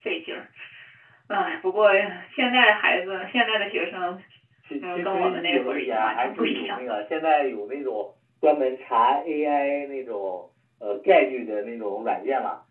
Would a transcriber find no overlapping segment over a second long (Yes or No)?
No